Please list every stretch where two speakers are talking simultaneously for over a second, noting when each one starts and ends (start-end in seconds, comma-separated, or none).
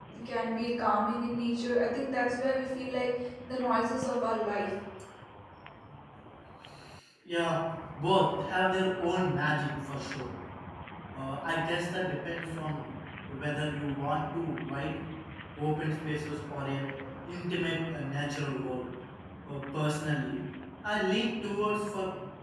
none